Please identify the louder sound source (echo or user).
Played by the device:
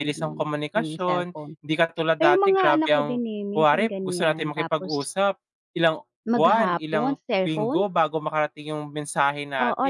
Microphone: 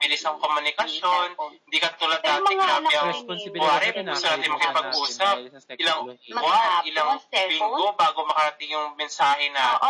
echo